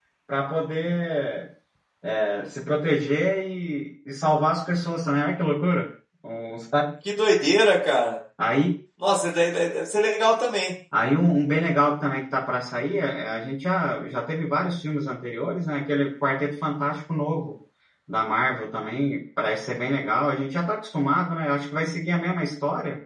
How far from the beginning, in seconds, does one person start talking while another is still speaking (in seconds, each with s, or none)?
none